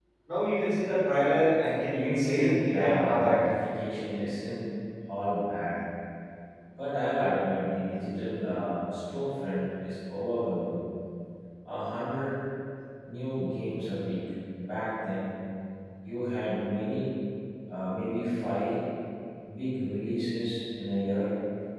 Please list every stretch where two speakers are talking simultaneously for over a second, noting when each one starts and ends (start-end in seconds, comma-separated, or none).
1.9-3.4